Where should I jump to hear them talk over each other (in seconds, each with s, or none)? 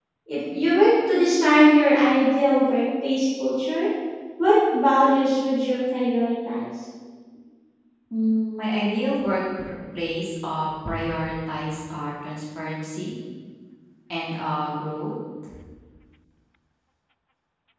none